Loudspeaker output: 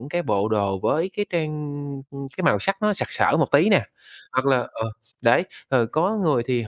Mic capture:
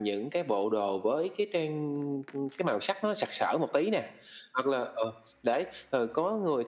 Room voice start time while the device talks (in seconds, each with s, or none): none